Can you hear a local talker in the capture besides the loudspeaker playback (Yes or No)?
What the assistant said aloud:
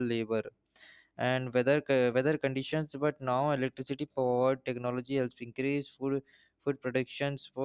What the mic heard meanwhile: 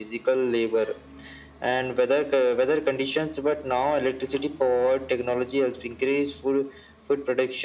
No